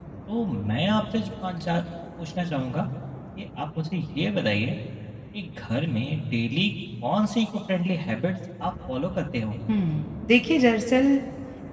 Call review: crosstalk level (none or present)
none